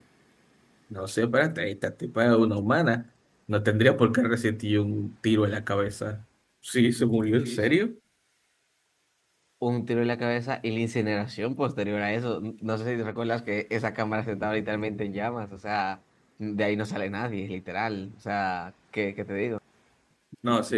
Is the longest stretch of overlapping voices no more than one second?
Yes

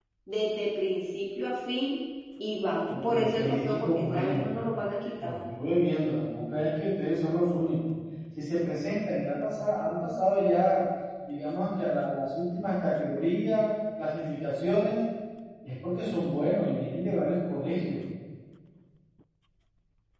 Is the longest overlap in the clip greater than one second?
Yes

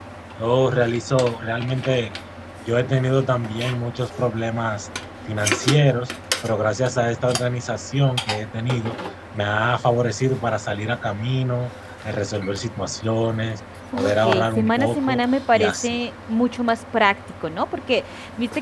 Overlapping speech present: Yes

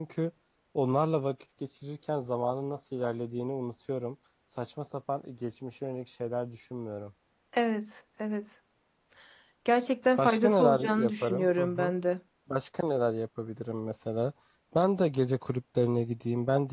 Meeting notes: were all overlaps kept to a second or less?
No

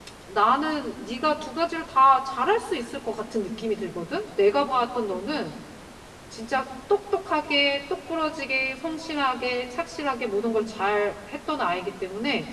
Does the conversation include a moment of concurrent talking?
No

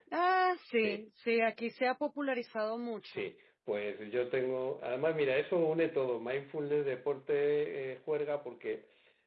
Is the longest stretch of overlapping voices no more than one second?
Yes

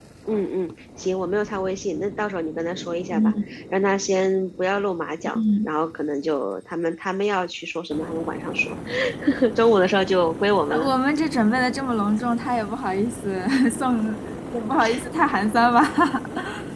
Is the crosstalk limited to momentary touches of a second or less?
Yes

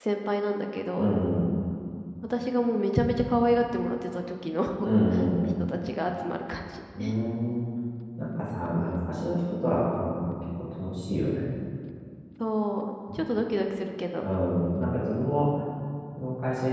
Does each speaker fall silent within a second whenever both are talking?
Yes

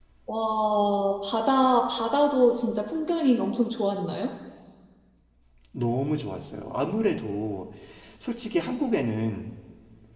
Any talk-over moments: No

